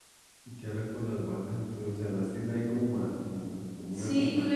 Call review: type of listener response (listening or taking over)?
taking over